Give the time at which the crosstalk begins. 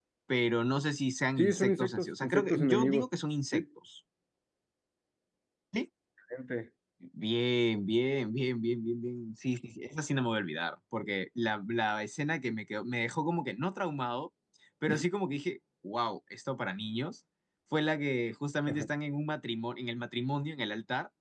1 s

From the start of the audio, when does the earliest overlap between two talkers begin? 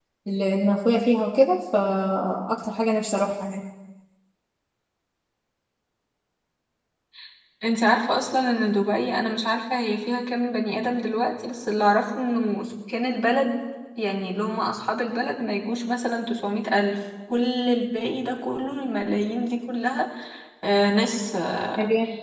none

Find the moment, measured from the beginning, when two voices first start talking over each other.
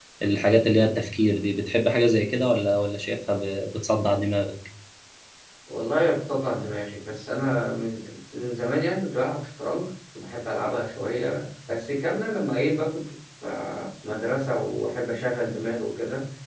none

